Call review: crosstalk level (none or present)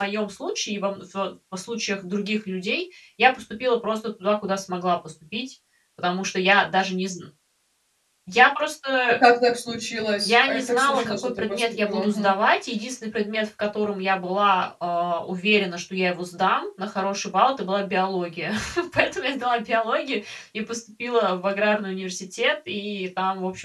present